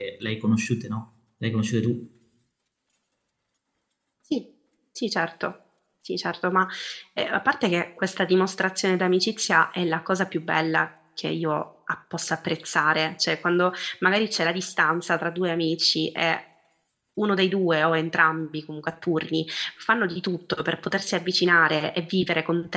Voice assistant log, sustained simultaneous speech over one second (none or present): none